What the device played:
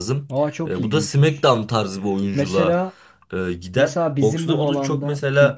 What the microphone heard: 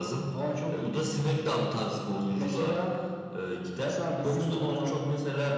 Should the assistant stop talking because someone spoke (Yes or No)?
No